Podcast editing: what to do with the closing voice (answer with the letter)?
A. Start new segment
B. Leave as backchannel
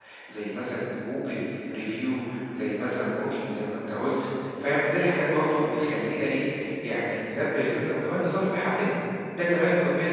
B